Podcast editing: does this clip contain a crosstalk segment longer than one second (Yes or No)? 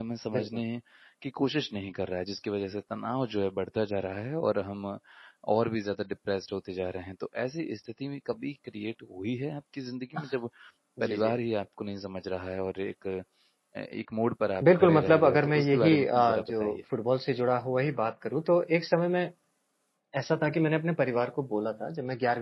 Yes